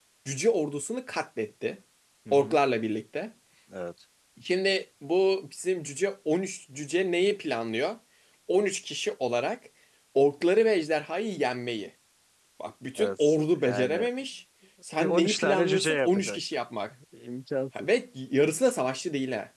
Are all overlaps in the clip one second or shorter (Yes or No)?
No